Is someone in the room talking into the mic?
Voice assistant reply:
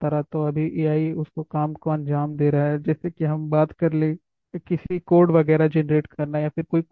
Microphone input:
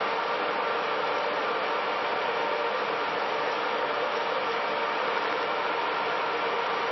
No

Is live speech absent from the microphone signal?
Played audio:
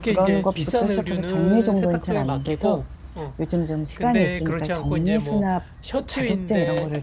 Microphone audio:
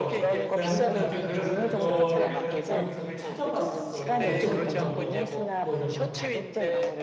No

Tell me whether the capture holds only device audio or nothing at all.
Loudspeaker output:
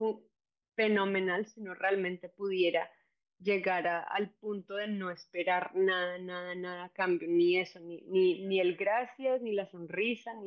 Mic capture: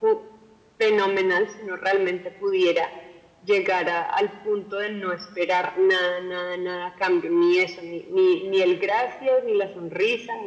Yes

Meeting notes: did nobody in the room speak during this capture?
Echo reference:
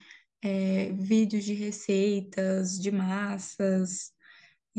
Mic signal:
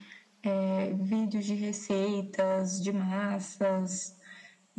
Yes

